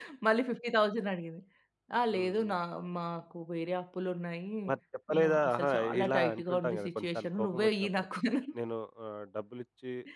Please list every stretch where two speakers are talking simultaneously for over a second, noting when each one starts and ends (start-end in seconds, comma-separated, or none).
5.2-8.1